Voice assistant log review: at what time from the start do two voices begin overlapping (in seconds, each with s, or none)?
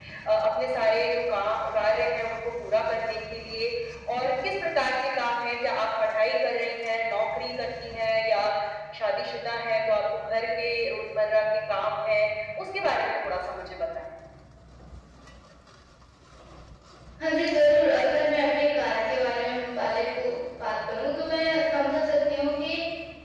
none